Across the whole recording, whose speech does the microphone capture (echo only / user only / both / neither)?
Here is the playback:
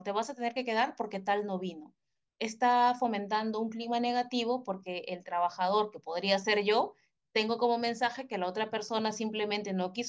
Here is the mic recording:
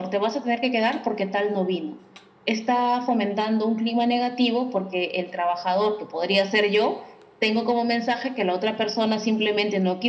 echo only